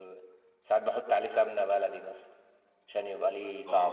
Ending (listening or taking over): taking over